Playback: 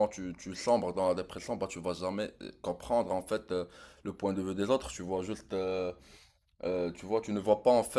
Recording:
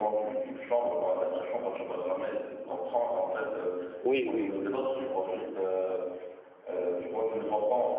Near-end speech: present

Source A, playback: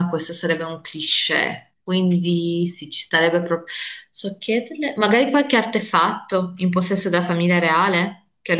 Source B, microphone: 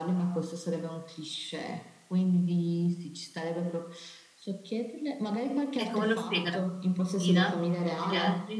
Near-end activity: present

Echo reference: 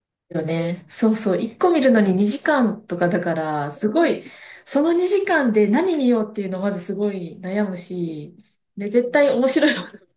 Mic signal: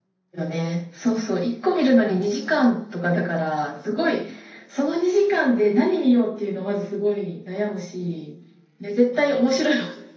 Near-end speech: none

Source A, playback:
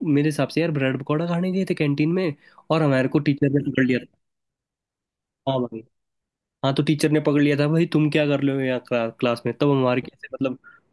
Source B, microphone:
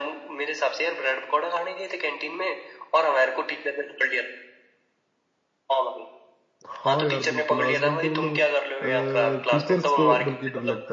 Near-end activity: present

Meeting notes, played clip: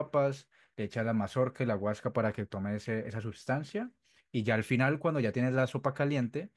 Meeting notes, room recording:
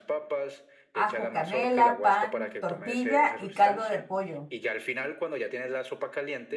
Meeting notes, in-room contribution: present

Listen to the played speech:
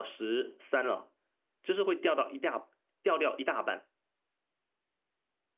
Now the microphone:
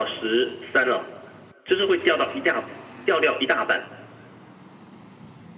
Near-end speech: none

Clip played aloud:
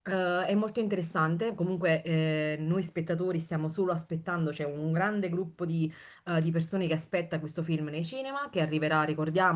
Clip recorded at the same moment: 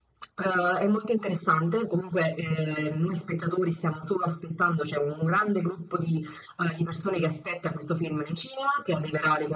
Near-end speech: none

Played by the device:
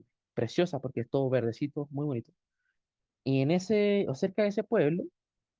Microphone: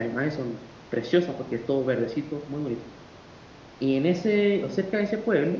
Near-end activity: none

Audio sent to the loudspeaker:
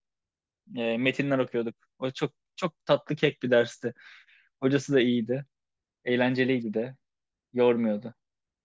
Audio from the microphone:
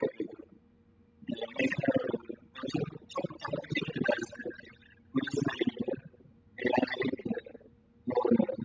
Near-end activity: none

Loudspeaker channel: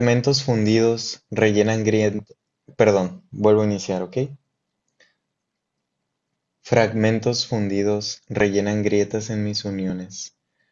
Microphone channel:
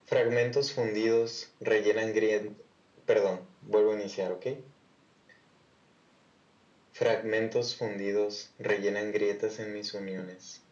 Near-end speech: none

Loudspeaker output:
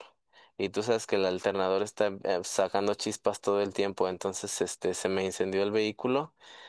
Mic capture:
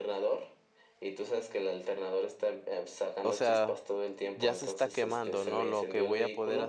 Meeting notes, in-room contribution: present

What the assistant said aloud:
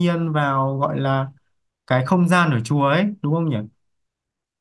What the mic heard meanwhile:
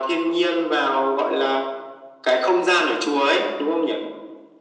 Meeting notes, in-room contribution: none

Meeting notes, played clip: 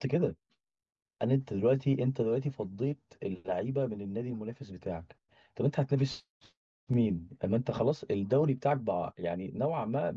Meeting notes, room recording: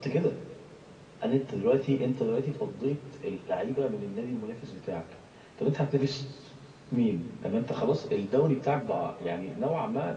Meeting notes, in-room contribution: none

